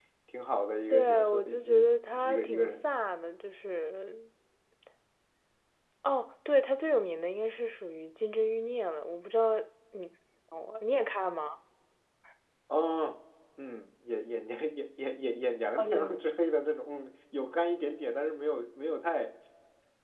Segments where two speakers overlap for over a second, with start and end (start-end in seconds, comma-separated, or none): 0.9-2.9